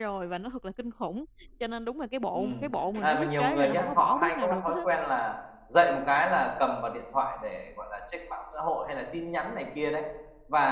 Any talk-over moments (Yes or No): Yes